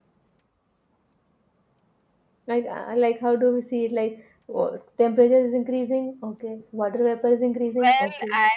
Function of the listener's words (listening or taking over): taking over